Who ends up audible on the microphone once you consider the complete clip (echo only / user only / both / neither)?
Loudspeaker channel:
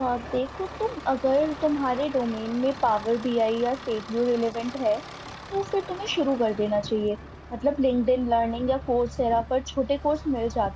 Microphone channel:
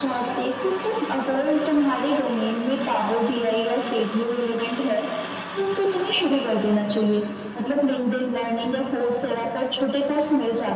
echo only